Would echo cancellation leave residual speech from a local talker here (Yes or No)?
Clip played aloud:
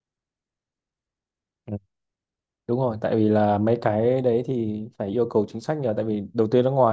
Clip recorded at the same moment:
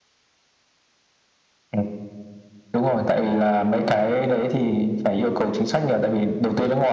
No